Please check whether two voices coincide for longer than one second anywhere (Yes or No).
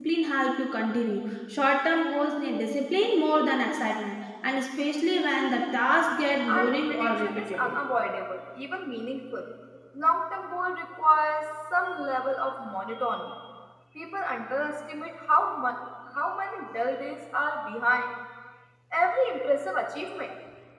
Yes